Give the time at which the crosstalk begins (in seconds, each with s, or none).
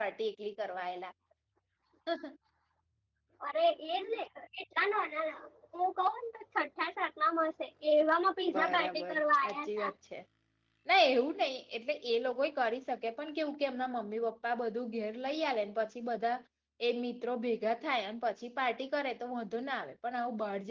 8.5 s